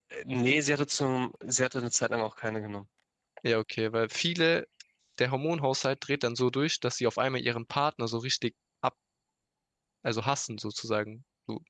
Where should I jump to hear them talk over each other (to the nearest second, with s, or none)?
none